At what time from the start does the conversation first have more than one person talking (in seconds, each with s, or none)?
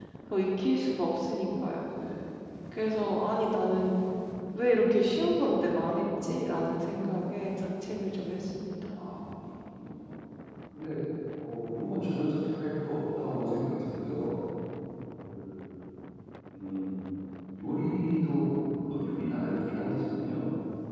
none